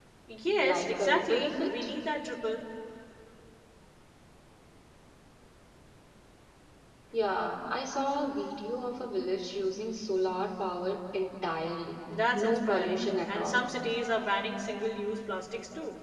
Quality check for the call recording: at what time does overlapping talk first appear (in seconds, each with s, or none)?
0.6 s